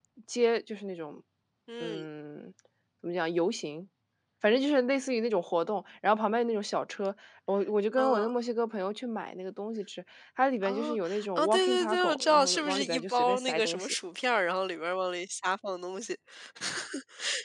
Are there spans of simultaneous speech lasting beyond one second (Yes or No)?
Yes